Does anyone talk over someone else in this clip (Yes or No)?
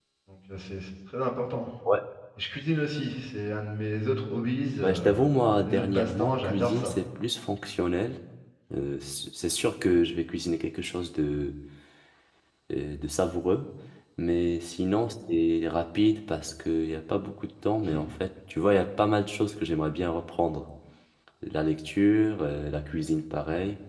Yes